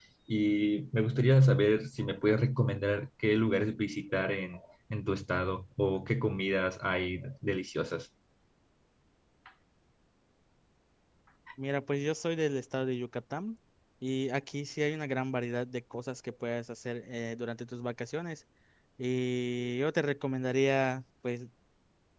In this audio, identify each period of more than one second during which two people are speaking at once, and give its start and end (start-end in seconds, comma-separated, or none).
none